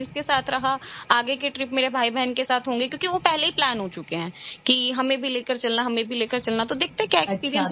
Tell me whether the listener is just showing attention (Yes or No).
No